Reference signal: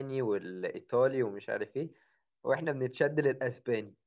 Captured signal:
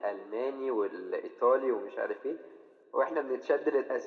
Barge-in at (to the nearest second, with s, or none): none